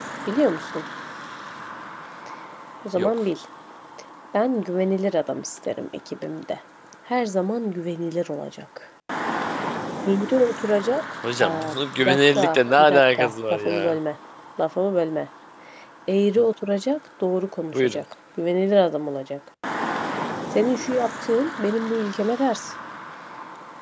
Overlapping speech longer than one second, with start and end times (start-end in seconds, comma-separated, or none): 11.4-14.0